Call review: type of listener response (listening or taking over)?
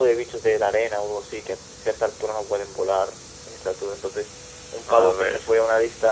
listening